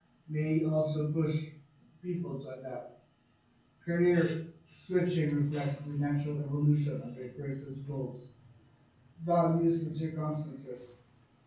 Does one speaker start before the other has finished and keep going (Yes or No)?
No